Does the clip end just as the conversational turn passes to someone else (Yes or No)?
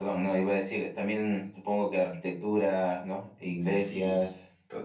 Yes